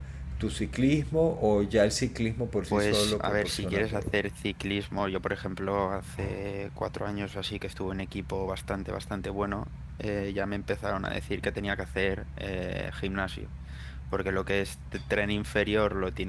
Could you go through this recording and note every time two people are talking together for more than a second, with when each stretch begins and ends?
2.7-4.2

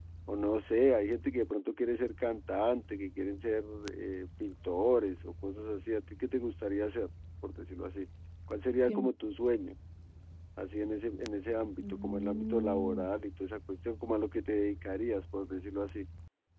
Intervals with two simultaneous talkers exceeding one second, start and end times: 11.8-13.1

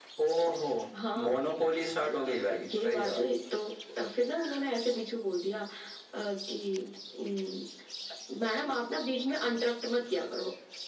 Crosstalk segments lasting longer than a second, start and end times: 2.0-3.3

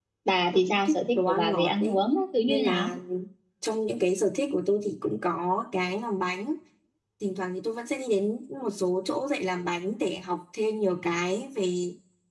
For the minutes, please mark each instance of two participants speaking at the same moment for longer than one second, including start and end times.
0.7-2.0

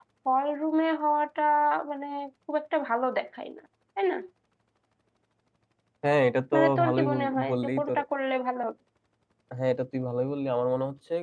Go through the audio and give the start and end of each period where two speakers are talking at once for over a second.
6.5-8.0

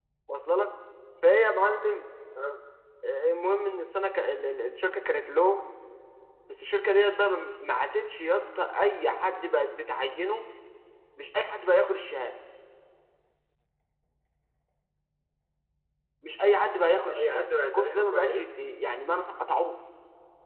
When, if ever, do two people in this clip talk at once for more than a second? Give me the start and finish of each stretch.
17.1-18.4

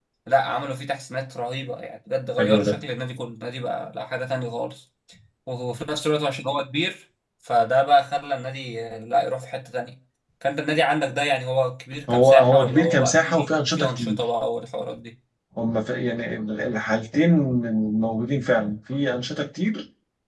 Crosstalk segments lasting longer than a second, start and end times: 12.1-14.2

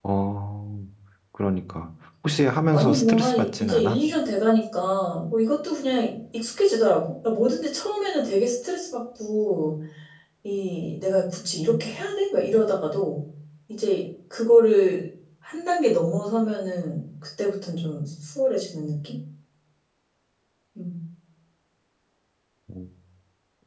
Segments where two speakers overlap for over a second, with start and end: 2.7-4.0

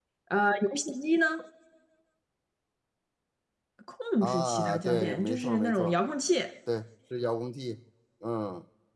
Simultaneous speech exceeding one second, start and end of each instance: 4.2-6.0

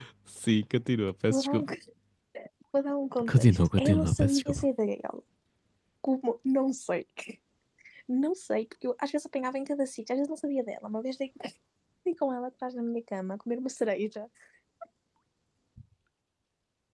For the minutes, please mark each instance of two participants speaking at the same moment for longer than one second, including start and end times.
3.3-4.7

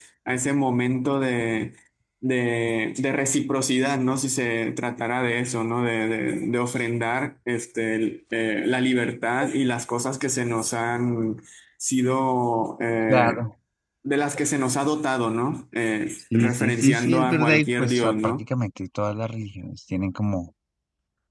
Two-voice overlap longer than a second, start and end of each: 16.3-18.4

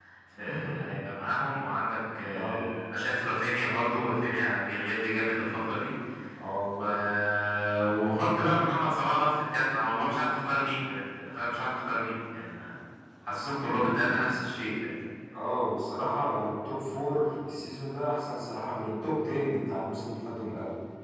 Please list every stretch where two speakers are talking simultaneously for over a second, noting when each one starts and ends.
none

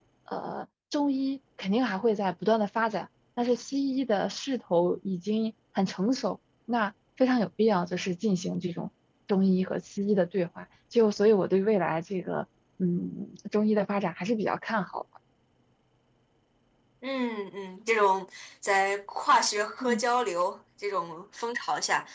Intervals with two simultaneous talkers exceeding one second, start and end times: none

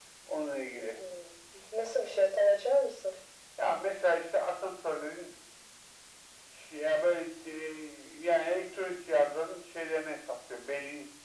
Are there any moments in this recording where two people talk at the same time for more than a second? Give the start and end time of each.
none

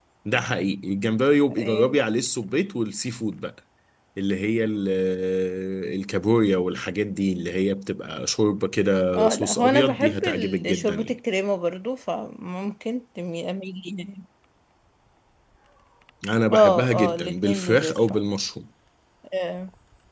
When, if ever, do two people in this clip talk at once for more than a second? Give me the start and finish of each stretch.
9.1-11.2, 16.5-18.2

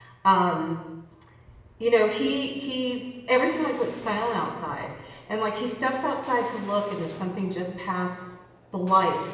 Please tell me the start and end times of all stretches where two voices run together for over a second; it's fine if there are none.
none

